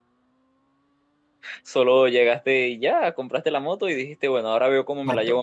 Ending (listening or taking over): taking over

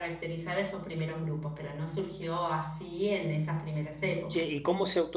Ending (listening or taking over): taking over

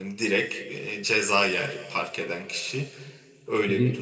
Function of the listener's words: taking over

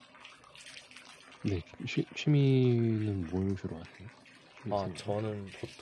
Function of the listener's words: taking over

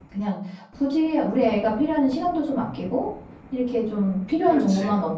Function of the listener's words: listening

